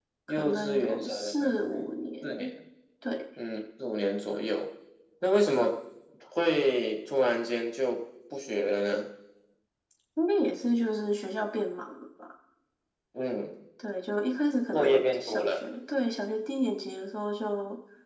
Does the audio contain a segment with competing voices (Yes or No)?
Yes